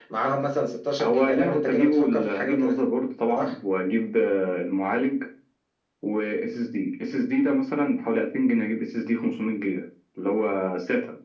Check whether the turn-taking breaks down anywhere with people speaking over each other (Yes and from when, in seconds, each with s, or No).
Yes, from 1.0 s